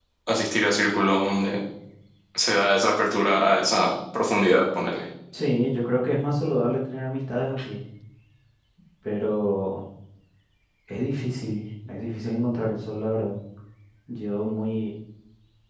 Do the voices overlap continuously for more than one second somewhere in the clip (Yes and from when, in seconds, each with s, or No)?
No